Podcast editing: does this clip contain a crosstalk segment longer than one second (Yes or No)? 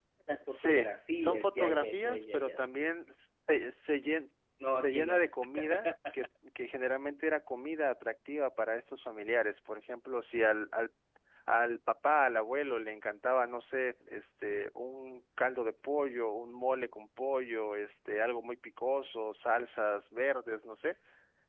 Yes